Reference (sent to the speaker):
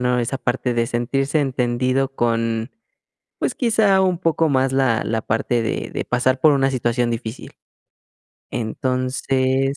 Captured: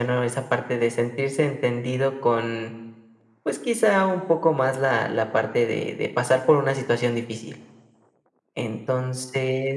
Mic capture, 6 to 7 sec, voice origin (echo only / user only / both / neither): echo only